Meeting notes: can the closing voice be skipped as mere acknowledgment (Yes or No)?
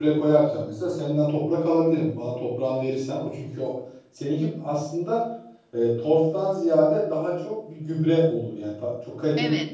No